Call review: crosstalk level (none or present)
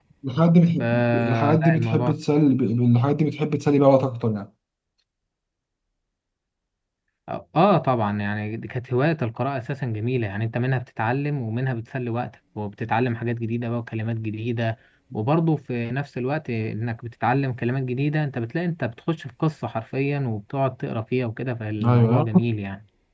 present